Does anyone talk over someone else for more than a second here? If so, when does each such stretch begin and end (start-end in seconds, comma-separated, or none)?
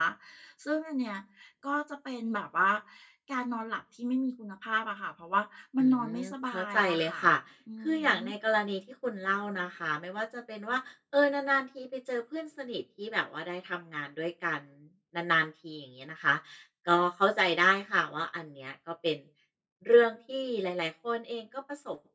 5.8-7.2